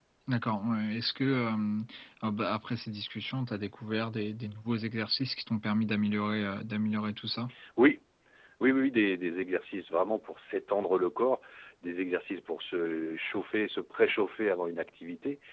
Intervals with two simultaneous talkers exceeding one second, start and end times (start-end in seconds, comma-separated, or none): none